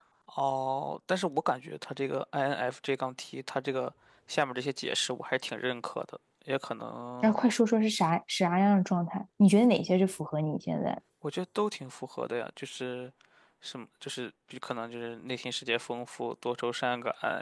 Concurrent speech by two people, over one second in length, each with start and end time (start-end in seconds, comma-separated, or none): none